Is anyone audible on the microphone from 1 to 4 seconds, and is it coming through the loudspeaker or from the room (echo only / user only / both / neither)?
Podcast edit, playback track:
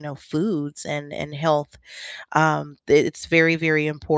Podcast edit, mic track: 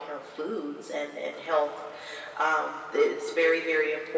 echo only